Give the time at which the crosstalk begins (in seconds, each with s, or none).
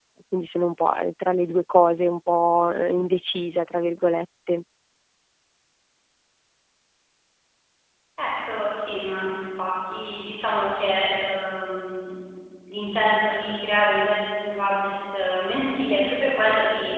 none